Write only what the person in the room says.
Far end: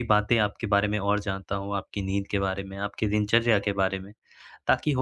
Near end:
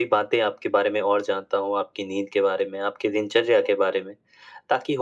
none

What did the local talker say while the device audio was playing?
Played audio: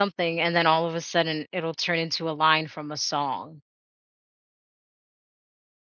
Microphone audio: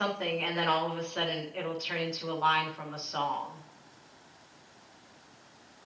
none

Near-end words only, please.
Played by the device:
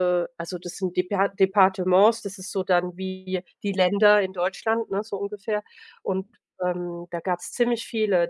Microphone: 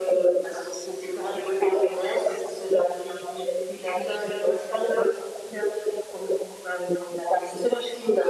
none

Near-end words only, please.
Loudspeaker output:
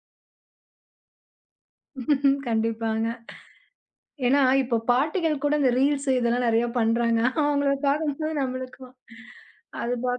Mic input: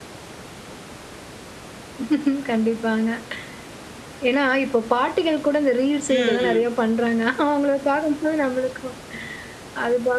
ம். ம்.

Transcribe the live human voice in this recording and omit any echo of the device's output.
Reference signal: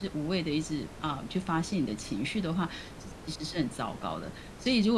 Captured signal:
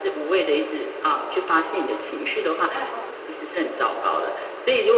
嗯嗯

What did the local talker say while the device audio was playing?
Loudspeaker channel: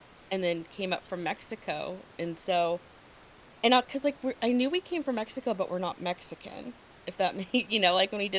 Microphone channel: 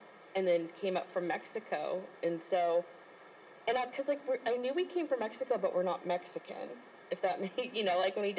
none

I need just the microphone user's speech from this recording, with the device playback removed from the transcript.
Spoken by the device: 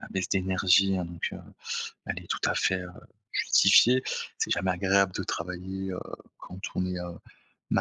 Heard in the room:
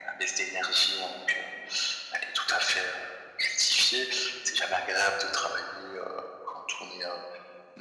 none

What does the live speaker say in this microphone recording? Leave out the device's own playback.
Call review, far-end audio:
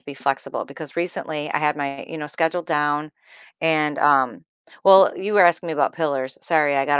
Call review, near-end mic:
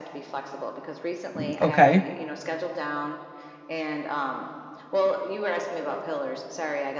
Mm, Okay.

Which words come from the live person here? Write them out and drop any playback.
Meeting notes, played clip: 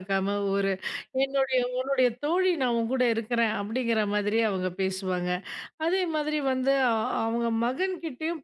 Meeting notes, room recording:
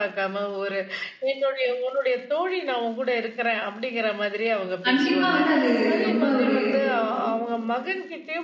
கண்டிப்பா வந்து அது ரொம்ப ஒரு

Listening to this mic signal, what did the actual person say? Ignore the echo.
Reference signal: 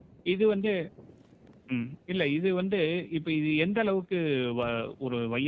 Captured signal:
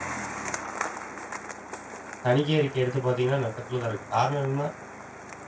தணிக்கை அறிக்கை எடுத்து பார்த்தீங்கன்னா, நட்டத்தில தான் இருக்கு. காரணம் என்னன்னா,

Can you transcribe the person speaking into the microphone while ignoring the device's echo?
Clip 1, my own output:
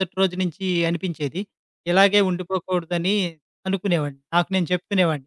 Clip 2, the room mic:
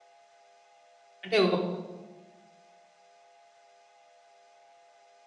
అంటే ఒక పక్క

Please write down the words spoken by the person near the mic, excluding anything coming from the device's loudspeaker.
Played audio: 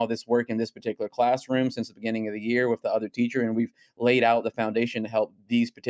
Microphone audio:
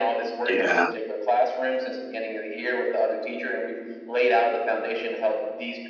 Yeah.

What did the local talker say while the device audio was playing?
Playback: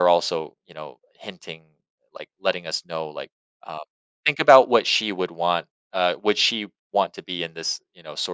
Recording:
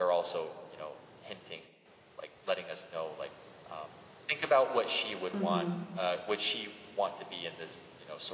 Mhm.

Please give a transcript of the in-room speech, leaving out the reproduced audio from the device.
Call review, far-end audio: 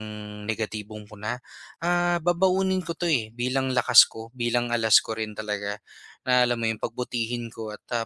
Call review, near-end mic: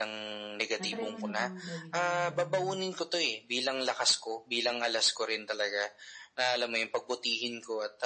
Na-try mo na bang gawin yung gano'ng,

